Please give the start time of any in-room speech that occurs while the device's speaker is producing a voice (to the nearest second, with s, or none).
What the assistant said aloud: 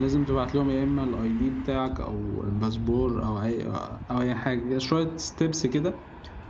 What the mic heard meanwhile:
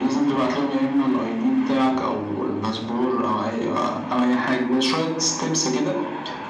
none